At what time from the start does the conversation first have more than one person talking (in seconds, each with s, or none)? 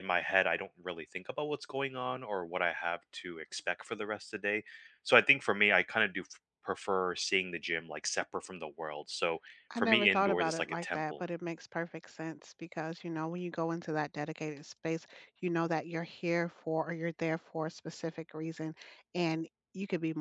9.7 s